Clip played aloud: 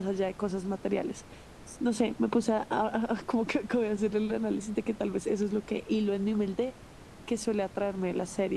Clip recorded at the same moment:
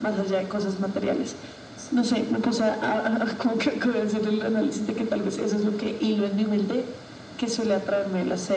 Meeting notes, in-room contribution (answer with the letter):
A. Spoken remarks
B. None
B